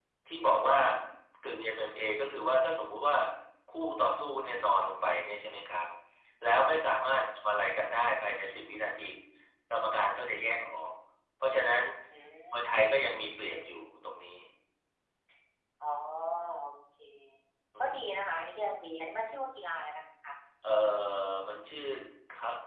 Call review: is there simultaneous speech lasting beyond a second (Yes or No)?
No